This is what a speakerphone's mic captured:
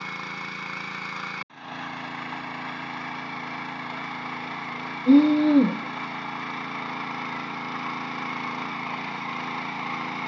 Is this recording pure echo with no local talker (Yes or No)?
No